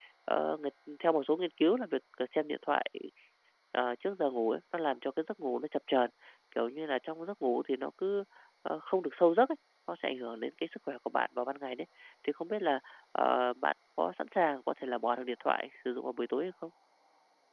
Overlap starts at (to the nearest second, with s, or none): none